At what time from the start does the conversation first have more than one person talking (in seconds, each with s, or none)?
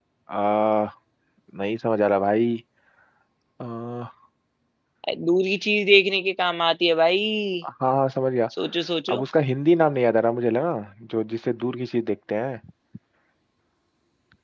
none